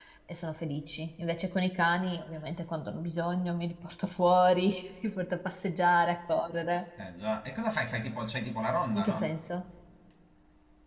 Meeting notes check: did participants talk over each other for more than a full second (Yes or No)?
No